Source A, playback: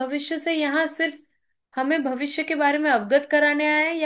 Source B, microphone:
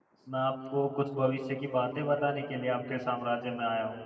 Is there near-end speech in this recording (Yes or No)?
Yes